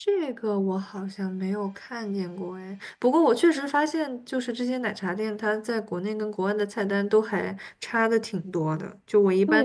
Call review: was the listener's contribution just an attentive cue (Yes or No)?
No